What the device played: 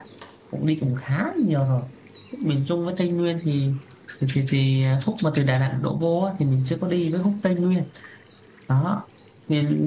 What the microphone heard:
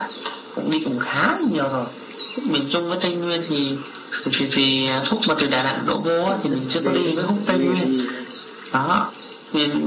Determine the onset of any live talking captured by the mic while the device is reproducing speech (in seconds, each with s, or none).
6.2 s